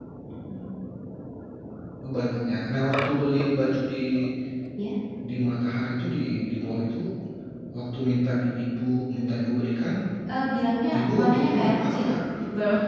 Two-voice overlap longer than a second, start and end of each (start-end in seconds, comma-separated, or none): 11.0-12.2